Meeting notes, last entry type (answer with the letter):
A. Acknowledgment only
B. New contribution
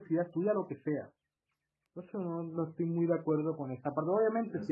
A